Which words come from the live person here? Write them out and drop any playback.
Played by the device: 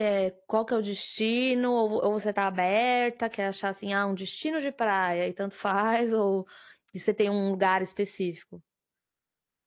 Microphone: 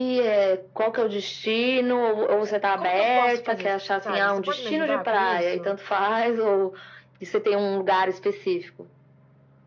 como que eu posso fazer, sabe. Você pode me ajudar com isso?

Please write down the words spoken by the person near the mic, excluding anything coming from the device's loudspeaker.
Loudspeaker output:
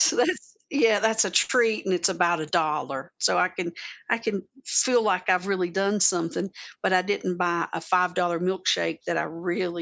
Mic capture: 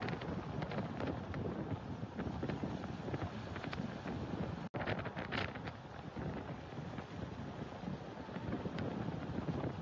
none

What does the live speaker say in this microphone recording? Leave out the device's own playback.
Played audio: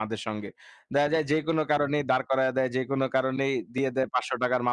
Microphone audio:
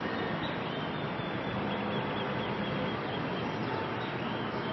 none

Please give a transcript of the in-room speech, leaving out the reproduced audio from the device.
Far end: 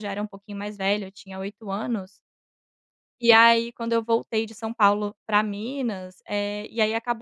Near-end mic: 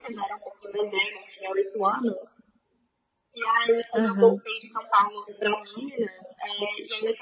Aham.

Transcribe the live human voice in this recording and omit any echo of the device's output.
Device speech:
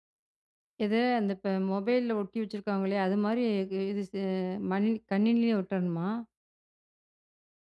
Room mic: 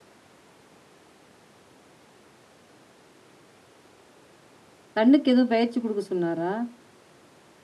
கண்ணுக்கு எதுவும் பயிற்சி குடுக்க சொன்னாரா?

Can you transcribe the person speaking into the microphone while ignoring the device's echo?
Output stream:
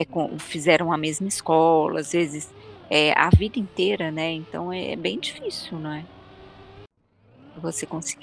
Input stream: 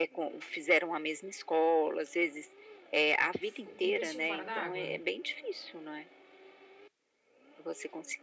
f um peixinho fora da água?

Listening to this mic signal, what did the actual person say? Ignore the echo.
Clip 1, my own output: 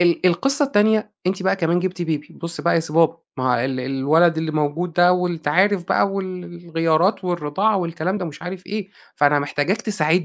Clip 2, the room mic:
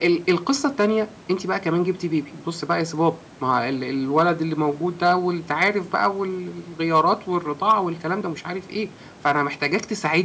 none

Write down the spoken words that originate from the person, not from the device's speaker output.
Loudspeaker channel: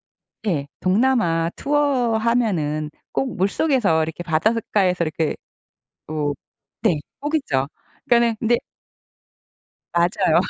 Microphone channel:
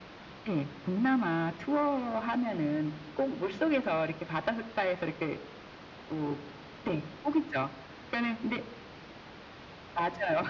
none

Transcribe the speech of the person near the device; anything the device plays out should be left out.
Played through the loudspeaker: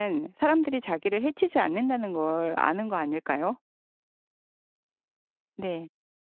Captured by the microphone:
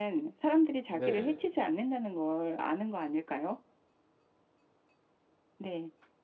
네.

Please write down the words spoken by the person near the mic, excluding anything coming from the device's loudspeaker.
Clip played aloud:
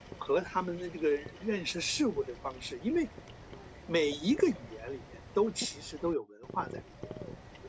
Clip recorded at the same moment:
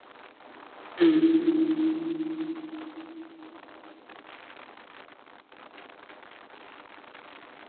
嗯。

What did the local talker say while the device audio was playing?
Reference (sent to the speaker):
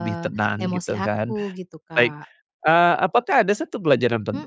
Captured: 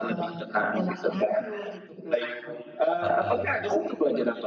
Heeh.

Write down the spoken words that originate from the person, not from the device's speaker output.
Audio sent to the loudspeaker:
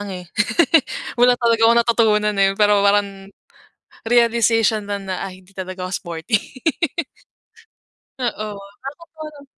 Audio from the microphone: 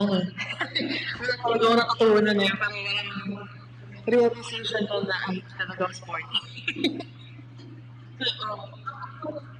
none

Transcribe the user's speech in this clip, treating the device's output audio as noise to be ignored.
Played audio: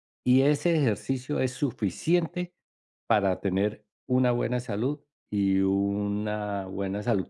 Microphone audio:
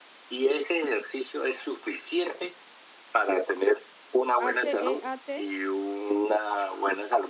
¿H-E-A-T?

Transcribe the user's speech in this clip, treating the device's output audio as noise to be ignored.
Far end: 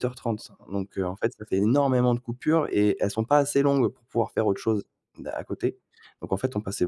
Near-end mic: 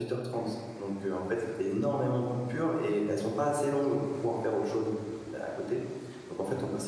none

